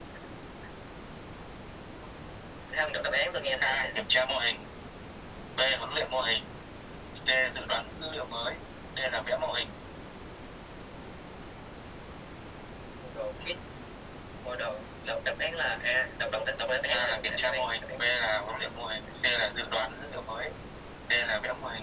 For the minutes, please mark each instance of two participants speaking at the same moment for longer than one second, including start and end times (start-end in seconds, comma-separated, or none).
16.9-18.1